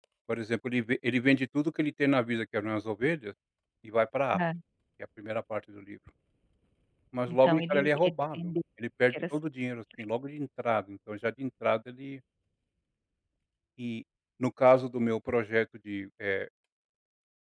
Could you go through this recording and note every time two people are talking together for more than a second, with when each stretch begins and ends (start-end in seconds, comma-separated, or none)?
7.3-8.5